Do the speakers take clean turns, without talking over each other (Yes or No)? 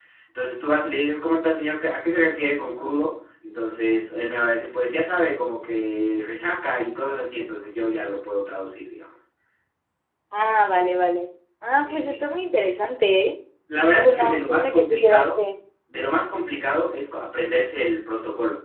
No